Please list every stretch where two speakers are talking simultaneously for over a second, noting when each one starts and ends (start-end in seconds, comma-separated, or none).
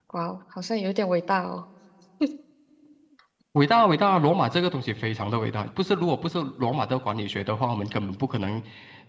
none